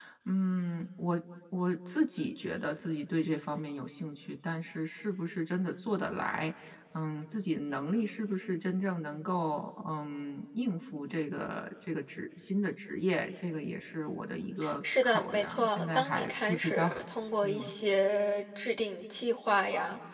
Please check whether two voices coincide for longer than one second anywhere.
Yes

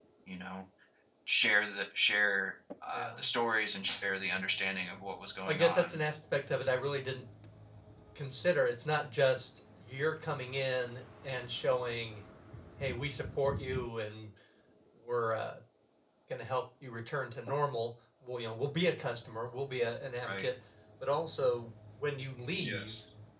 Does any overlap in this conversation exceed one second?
No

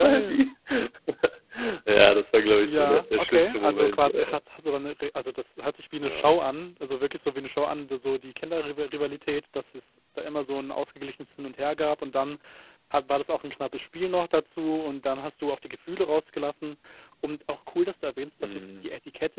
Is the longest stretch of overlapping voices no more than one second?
No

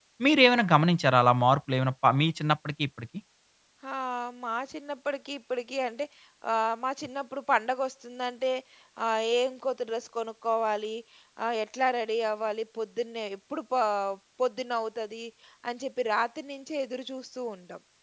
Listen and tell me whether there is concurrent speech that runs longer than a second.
No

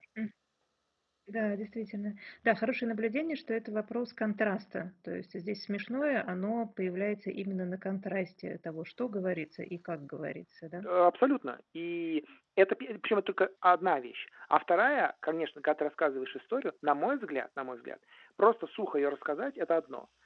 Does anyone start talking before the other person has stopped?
No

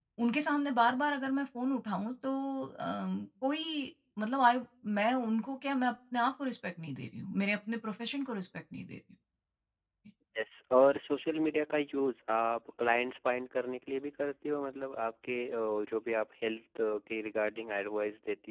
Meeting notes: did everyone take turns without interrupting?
Yes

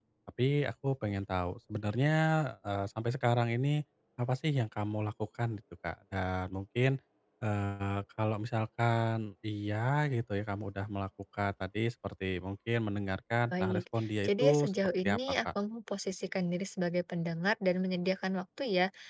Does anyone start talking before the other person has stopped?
Yes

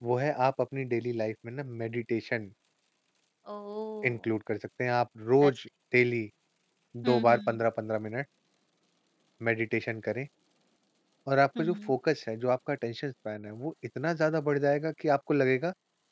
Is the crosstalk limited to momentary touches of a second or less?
Yes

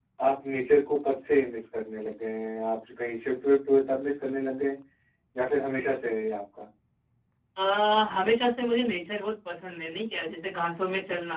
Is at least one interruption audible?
No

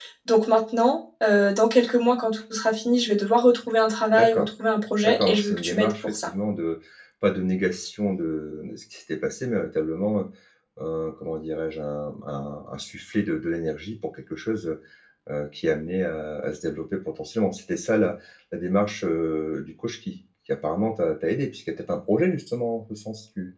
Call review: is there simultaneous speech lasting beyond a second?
Yes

